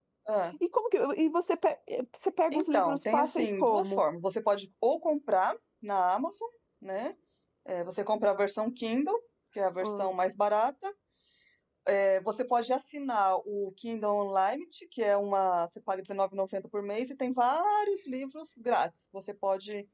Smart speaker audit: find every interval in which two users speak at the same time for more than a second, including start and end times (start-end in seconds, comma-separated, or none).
2.5-4.0